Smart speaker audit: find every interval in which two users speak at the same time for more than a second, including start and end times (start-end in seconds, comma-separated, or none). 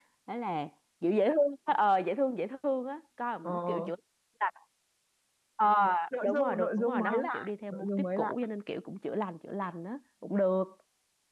6.2-8.3